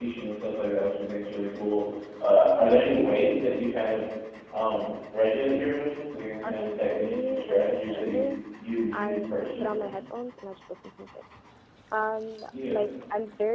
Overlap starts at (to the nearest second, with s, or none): 6 s